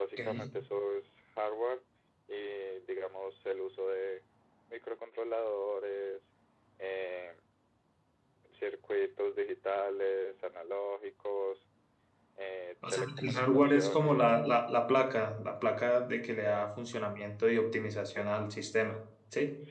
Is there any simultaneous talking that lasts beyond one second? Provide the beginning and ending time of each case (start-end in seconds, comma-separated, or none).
12.9-14.4